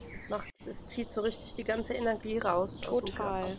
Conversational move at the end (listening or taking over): taking over